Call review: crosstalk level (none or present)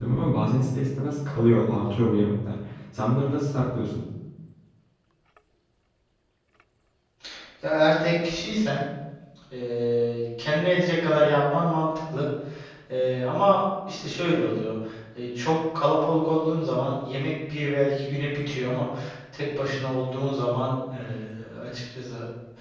none